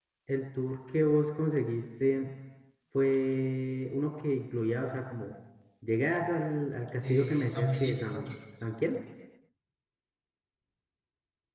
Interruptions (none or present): present